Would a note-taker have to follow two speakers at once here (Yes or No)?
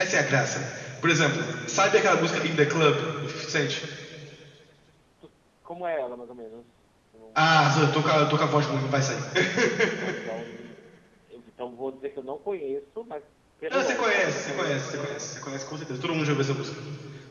Yes